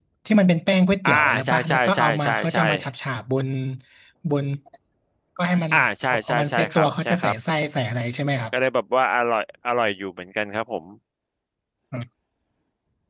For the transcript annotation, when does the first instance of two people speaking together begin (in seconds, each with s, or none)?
1.1 s